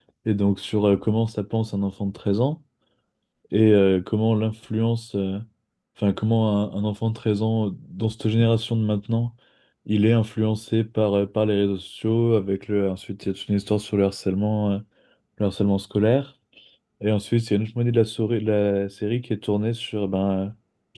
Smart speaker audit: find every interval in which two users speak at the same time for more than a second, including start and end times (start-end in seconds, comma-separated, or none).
none